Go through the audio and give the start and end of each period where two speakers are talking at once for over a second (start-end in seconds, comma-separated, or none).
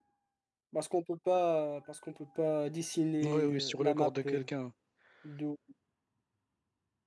3.2-4.4